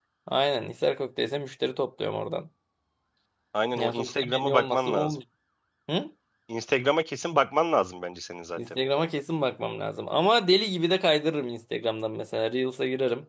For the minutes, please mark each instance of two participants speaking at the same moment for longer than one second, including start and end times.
3.8-5.1

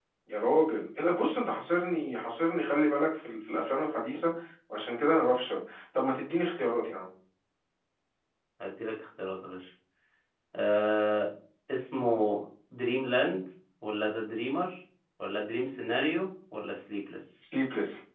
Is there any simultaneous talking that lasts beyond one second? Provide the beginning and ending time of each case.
none

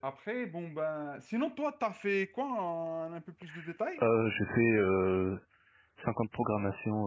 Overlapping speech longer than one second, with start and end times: none

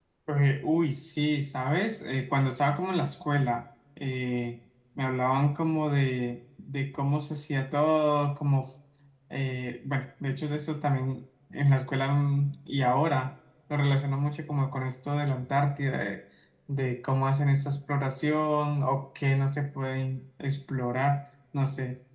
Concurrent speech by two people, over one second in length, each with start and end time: none

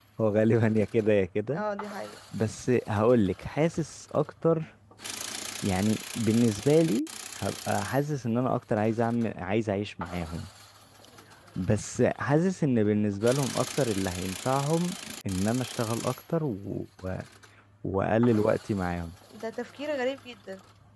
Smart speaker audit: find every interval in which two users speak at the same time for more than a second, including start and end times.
none

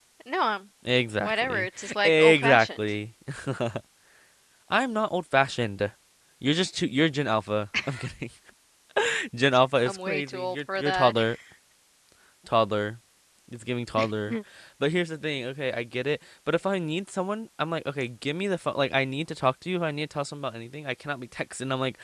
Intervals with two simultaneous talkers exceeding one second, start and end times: 1.2-2.9, 9.8-11.2

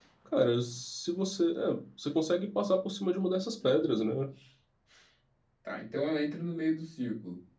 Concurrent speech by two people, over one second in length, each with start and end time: none

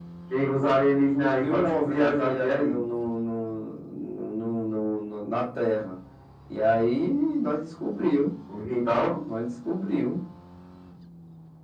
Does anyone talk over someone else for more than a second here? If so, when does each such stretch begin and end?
1.4-2.8

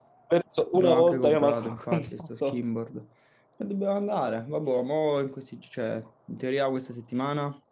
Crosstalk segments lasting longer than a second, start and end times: 0.7-2.6

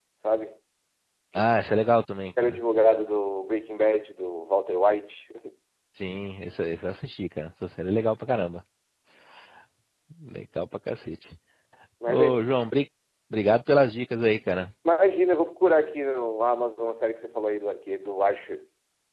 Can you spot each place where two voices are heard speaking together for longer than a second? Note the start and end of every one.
none

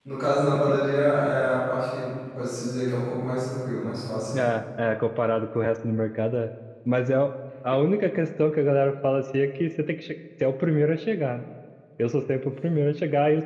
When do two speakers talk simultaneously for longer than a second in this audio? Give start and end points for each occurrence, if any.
none

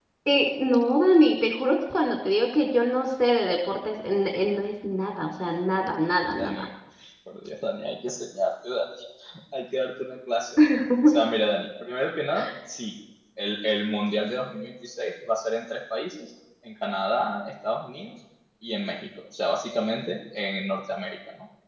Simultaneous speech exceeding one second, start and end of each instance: none

